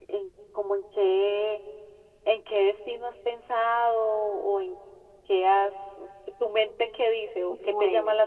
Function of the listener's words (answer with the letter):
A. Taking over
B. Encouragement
A